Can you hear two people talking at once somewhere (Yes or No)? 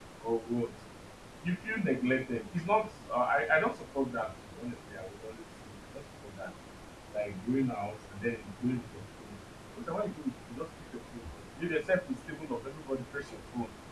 No